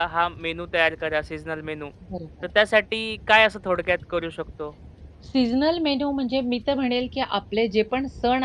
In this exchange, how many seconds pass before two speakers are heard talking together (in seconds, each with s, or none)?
none